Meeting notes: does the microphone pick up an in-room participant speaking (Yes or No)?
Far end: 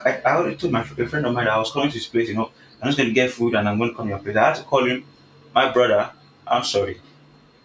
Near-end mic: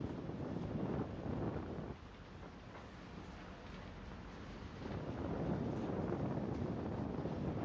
No